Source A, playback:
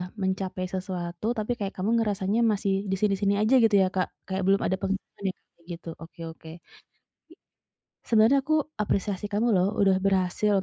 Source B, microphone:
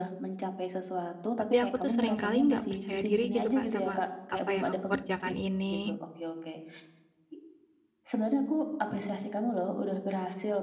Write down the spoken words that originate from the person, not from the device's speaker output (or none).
Tapi aku tuh sering kali nggak percaya diri gitu, Kak, sama apa yang aku kerjakan ini.